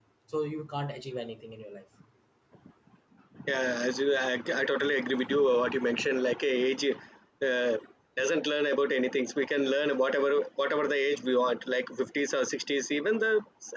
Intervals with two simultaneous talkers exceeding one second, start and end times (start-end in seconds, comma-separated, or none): none